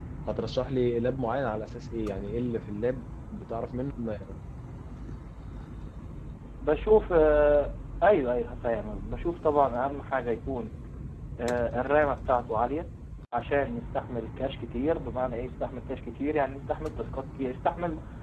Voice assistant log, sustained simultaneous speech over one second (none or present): none